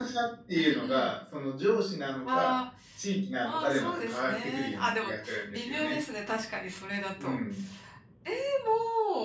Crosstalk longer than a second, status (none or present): present